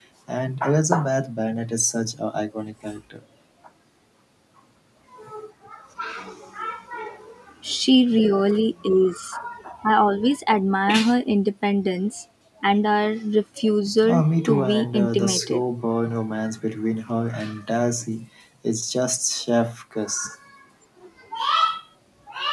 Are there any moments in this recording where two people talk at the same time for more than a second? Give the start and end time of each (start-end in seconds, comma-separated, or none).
14.1-15.6